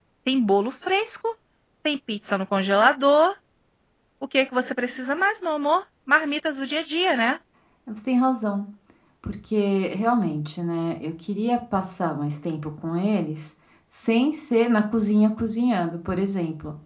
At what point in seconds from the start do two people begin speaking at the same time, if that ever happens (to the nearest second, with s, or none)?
none